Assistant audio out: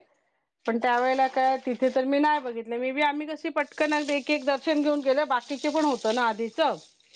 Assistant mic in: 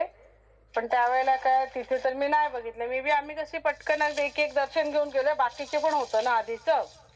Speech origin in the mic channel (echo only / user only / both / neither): echo only